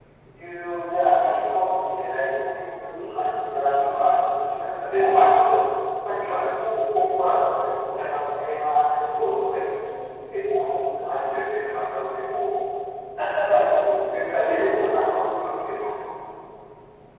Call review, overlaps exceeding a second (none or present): present